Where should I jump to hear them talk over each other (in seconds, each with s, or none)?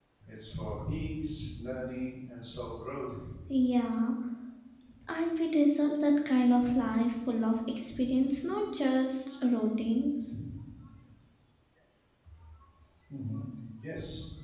none